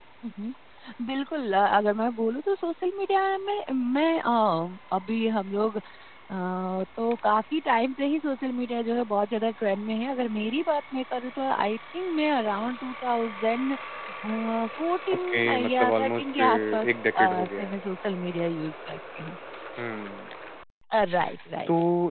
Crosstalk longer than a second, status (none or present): present